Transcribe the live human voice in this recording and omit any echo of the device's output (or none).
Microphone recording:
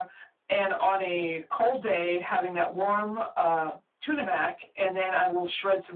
none